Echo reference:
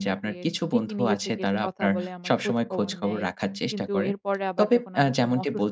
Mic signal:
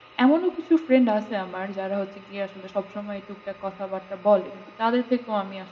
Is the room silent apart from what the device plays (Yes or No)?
No